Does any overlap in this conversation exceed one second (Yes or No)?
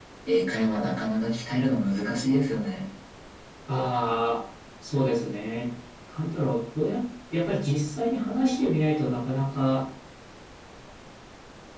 No